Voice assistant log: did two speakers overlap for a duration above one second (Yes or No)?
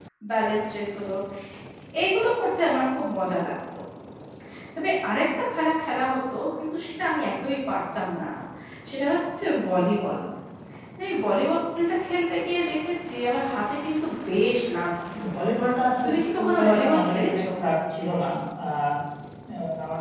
Yes